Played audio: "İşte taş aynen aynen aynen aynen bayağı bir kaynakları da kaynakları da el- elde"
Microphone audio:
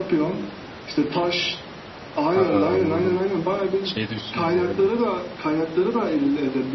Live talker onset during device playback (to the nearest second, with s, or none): 2 s